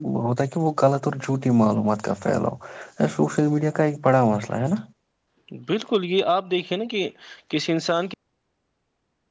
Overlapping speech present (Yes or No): No